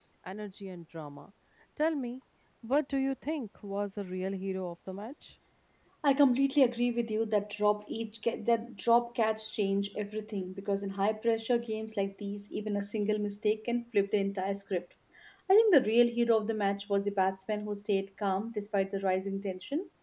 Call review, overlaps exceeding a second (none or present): none